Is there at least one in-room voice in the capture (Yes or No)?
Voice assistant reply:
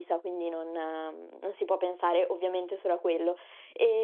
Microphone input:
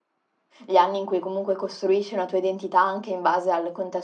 Yes